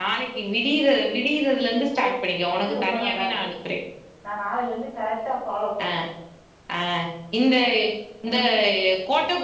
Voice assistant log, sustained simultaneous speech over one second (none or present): present